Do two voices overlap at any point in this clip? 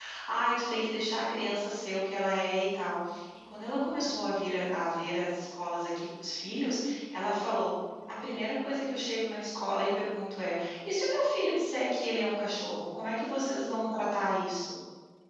No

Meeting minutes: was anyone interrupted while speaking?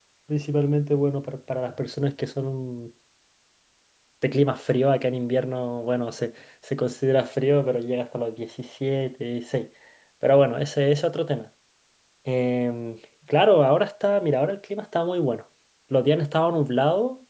No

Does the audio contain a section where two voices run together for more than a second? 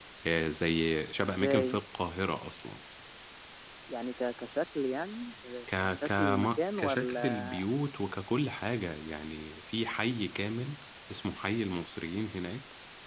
Yes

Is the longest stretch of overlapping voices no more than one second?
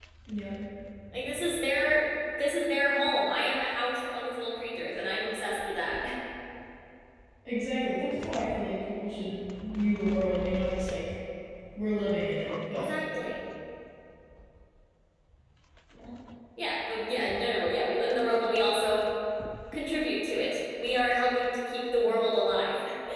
Yes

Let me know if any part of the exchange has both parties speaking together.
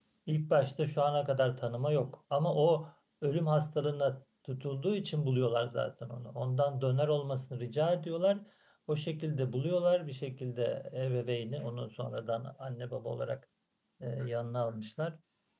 No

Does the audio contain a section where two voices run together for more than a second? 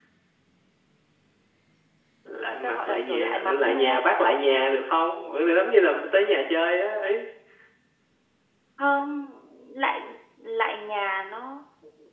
Yes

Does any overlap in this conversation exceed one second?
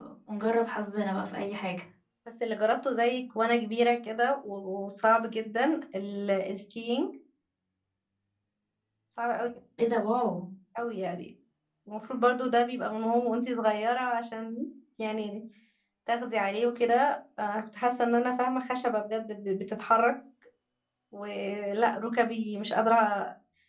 No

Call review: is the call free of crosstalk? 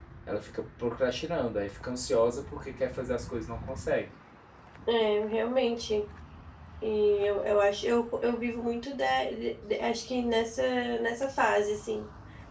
Yes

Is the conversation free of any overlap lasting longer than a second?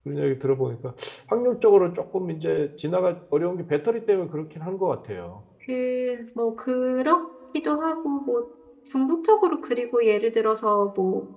Yes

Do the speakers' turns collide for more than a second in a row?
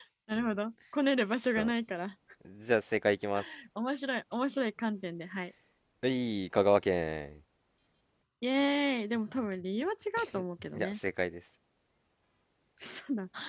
No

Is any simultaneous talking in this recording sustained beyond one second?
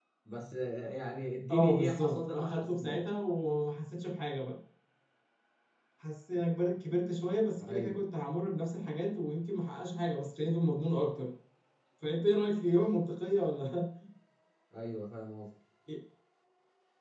Yes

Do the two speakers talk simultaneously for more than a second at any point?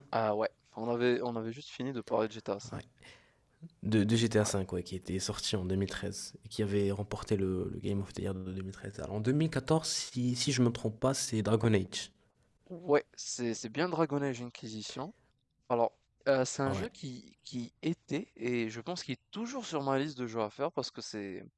No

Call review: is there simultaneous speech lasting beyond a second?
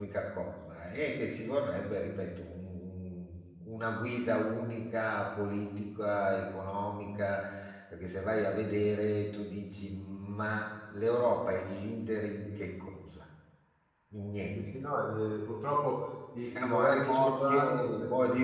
Yes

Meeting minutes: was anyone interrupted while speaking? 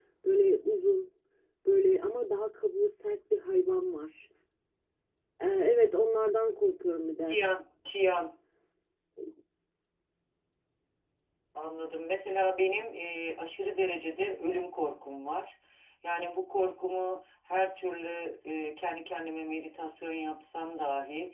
No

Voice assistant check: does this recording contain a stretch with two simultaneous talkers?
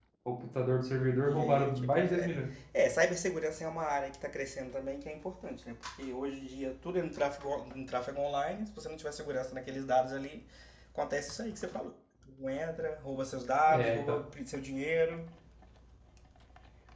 Yes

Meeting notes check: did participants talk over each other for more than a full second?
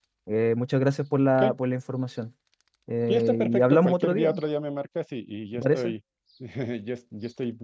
Yes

